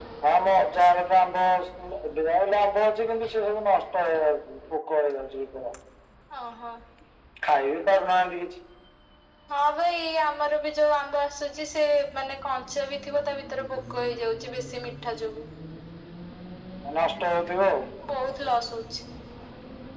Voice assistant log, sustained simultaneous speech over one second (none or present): none